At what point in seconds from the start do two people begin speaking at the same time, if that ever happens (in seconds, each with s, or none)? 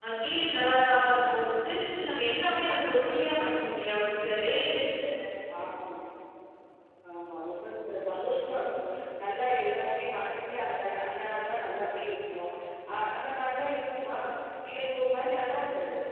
none